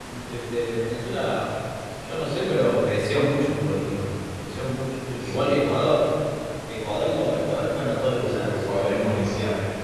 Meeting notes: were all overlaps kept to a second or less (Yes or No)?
No